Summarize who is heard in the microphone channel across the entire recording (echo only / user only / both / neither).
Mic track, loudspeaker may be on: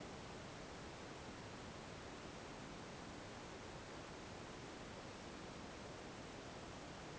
neither